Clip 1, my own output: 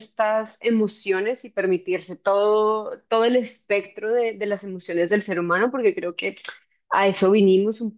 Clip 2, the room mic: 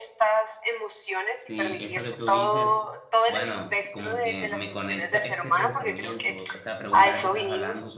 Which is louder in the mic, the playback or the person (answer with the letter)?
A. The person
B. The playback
B